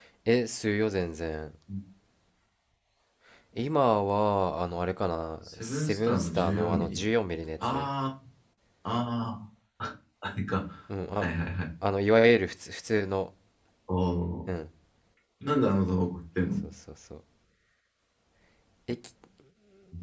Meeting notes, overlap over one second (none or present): present